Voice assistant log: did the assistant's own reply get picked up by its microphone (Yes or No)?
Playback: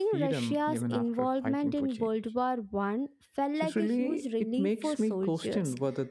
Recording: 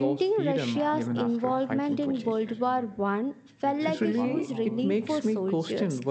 Yes